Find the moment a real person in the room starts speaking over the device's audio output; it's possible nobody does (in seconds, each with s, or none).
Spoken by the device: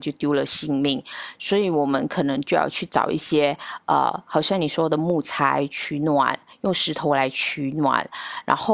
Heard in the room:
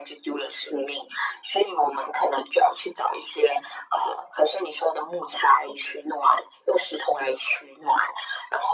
none